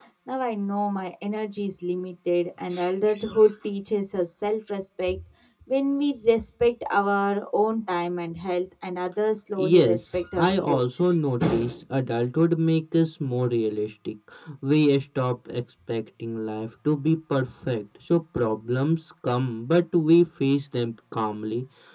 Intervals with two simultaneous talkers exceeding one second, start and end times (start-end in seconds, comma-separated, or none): 9.6-10.8